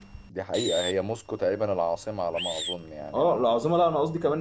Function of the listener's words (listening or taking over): taking over